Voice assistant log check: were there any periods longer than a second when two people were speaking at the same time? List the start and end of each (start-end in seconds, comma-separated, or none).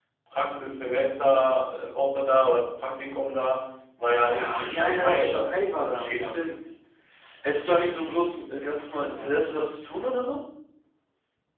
4.3-6.4